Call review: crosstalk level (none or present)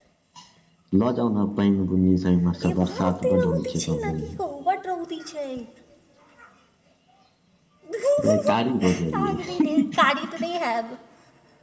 present